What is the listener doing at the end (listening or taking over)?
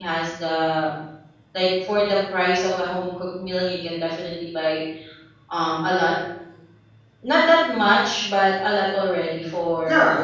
taking over